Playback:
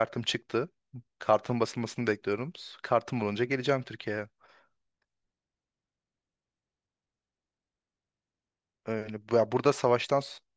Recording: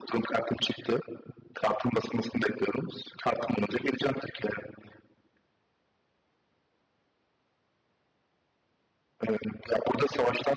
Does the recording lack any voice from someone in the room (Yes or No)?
Yes